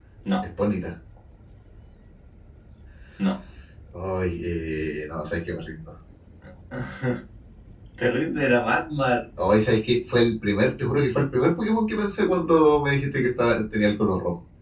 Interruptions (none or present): none